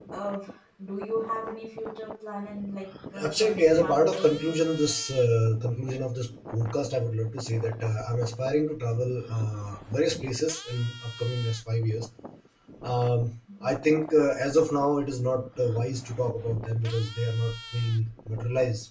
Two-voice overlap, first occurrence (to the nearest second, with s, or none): 3 s